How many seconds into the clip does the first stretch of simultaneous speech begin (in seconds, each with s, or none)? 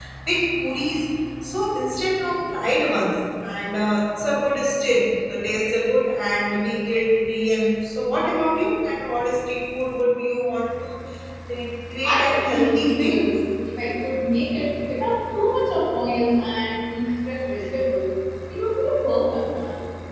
12.0 s